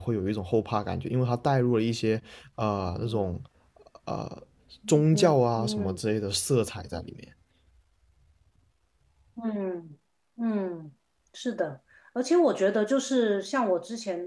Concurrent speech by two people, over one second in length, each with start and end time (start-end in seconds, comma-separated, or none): none